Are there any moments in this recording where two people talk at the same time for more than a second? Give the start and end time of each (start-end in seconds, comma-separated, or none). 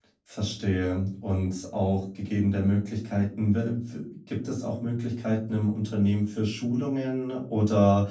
none